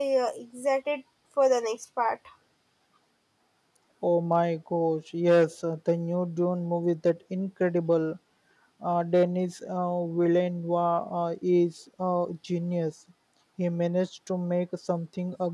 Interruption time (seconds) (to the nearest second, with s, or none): none